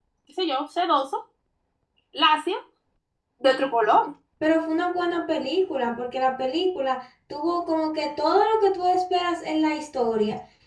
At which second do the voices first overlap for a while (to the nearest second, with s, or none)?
none